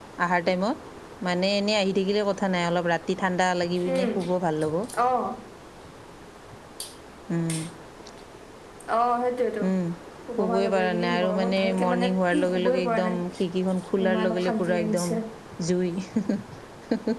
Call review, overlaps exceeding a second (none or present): present